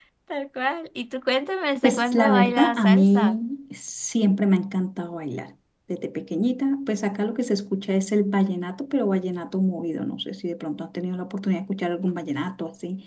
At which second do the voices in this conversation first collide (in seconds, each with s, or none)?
1.8 s